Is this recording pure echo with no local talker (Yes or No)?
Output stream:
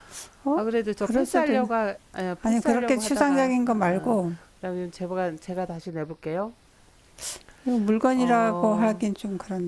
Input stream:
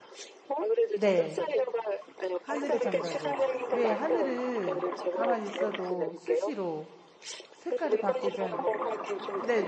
No